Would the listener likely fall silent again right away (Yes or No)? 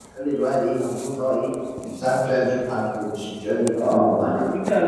No